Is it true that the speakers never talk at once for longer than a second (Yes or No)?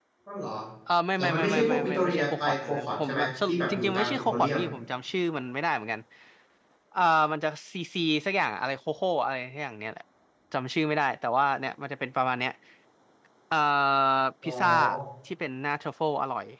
No